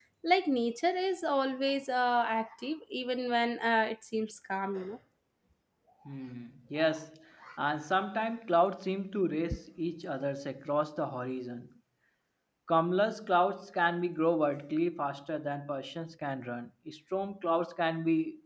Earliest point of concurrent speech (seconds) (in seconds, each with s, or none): none